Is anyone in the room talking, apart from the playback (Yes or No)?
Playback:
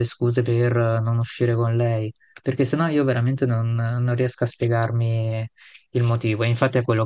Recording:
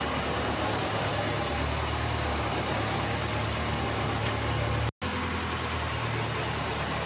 No